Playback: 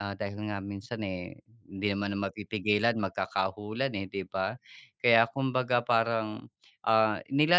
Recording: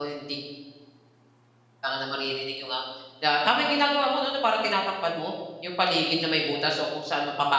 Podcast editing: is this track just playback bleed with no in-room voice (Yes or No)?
No